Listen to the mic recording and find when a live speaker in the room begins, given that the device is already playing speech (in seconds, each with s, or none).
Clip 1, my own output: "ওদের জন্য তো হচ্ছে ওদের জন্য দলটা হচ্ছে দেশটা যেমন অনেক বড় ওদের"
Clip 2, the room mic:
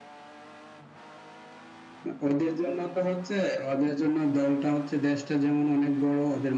none